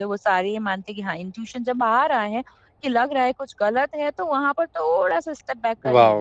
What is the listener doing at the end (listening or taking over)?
taking over